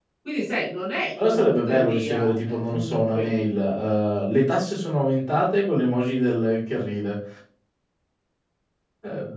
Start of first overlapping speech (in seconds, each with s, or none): 1.2 s